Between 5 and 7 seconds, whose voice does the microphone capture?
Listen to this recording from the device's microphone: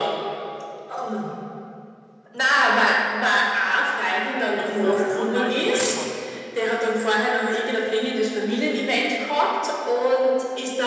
both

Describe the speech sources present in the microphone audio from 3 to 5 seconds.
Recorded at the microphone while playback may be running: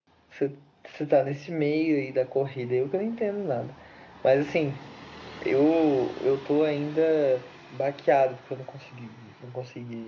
echo only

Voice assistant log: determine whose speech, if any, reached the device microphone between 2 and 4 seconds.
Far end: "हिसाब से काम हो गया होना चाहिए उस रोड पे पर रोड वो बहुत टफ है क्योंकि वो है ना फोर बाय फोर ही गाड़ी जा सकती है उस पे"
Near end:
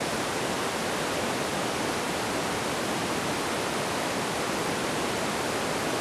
neither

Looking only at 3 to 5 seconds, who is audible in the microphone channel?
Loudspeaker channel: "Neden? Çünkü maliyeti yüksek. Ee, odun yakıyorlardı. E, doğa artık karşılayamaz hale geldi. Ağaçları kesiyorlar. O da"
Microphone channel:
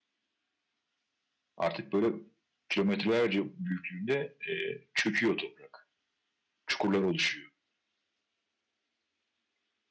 user only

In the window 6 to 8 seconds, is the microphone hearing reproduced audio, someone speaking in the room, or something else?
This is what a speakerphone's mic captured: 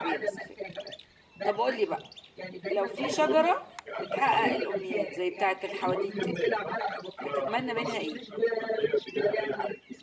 both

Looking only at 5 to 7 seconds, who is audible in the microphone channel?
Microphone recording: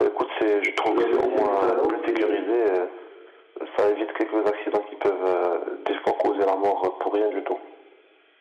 echo only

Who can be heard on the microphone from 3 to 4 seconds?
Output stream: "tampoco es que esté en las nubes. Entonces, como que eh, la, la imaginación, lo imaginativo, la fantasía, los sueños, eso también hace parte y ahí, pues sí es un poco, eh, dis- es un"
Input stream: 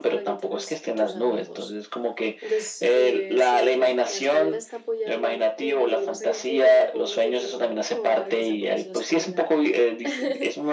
both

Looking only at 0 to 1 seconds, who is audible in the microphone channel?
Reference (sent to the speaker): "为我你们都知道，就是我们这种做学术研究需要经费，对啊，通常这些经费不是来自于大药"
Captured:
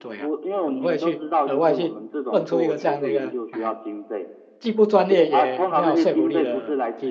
both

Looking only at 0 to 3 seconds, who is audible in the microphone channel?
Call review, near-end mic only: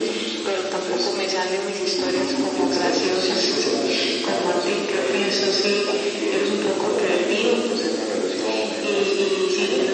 echo only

